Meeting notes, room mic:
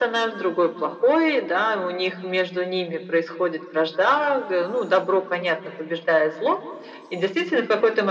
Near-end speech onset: none

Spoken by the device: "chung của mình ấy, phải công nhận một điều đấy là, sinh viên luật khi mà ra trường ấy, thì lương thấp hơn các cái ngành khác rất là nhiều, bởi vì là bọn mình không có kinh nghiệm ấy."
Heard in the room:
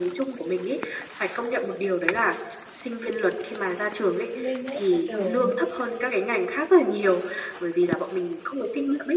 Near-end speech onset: 4.3 s

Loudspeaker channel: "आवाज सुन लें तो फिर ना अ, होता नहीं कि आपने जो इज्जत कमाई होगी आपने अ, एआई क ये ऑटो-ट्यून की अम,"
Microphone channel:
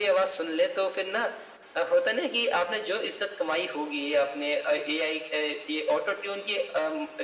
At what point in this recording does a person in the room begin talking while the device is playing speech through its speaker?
none

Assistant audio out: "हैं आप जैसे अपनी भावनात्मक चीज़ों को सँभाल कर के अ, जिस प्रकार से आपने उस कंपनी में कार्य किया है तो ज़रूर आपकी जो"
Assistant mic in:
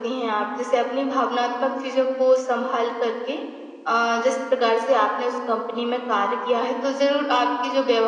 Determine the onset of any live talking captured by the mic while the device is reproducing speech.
none

